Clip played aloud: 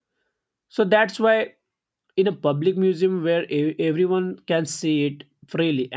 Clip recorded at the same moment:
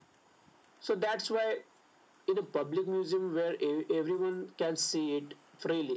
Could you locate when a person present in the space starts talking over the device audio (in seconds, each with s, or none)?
none